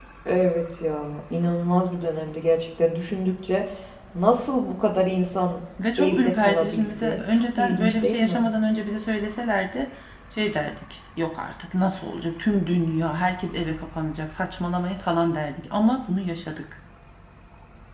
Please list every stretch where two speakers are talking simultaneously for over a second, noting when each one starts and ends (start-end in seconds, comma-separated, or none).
6.0-8.4